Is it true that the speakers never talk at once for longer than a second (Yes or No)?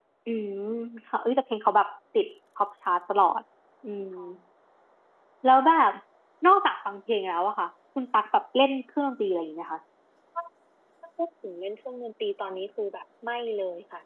Yes